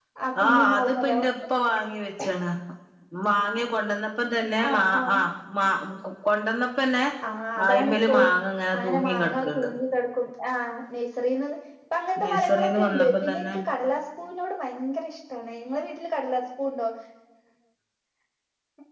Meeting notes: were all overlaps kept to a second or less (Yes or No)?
No